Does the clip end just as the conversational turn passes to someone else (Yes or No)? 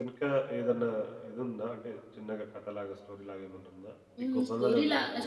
Yes